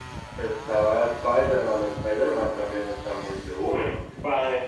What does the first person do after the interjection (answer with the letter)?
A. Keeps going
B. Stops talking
B